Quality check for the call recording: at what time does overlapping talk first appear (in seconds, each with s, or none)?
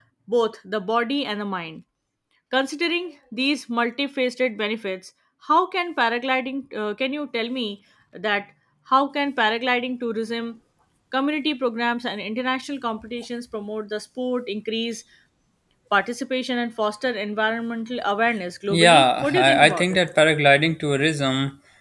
18.7 s